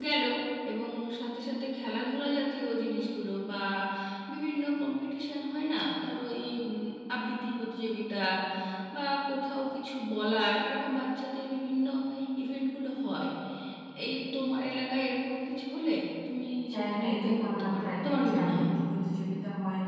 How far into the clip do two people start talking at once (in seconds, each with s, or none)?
16.7 s